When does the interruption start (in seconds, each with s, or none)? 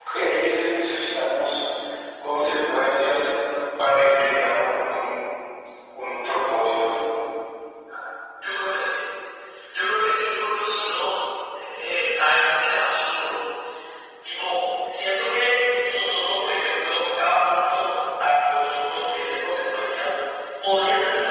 none